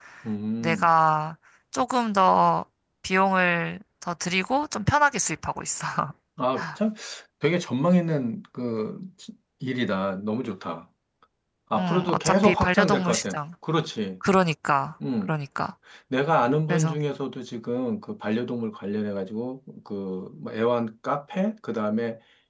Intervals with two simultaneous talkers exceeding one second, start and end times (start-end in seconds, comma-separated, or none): 11.8-13.4